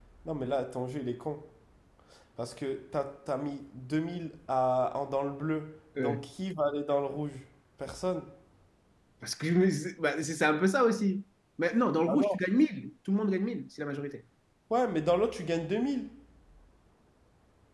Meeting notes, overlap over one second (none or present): none